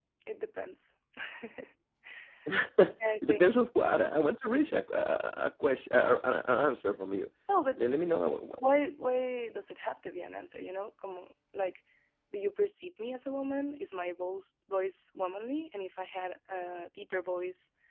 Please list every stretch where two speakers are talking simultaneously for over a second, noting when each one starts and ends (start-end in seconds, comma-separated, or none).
none